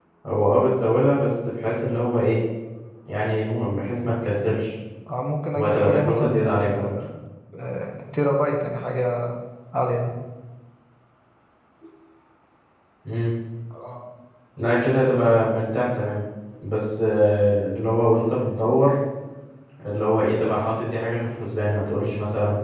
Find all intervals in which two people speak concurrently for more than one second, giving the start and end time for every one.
5.5-6.9

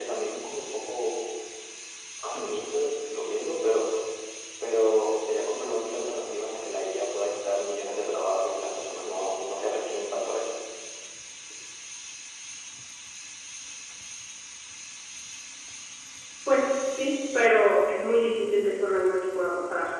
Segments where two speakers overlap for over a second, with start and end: none

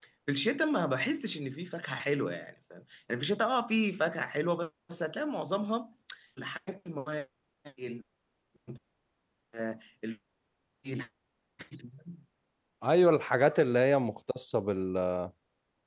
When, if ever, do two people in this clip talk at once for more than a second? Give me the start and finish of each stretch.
none

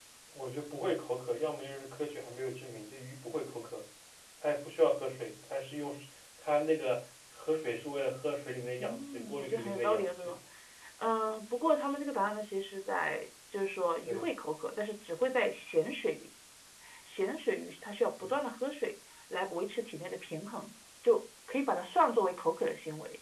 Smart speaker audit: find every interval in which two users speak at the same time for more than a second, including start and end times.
8.8-10.3

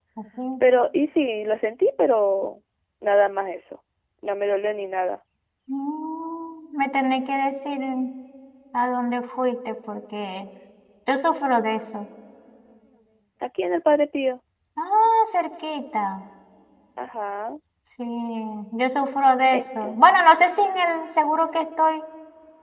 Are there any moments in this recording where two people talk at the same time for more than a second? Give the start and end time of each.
none

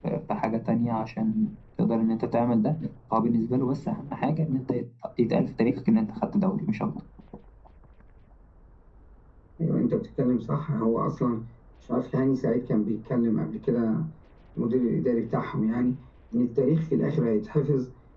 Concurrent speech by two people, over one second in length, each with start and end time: none

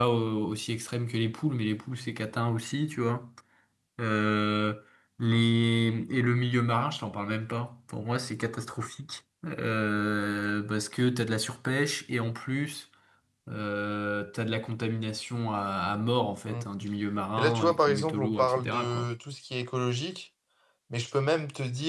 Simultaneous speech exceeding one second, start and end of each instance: 17.4-19.1

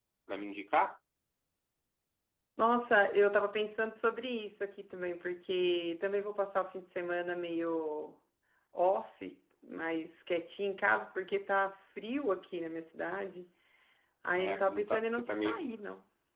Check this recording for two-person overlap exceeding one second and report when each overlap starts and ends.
14.4-15.7

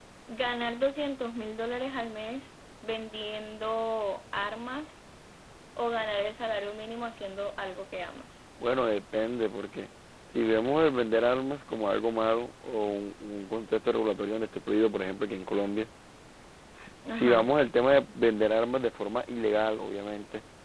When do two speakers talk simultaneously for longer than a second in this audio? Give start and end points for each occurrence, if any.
none

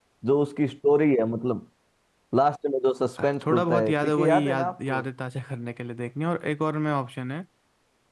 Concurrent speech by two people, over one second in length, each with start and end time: 3.2-5.0

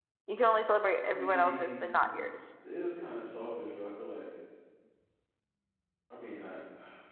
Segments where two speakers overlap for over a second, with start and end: 1.0-2.3

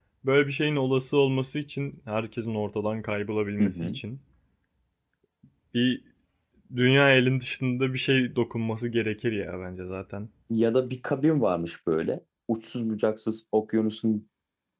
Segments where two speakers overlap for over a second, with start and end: none

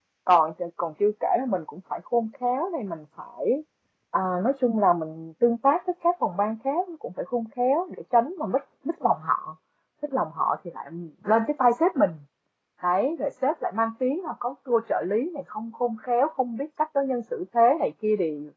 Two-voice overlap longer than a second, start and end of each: none

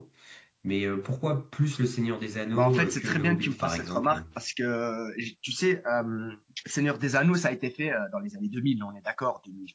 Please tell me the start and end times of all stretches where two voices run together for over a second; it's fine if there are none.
2.5-4.2

